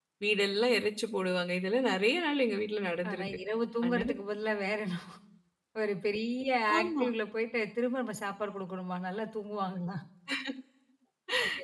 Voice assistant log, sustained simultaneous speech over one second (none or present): none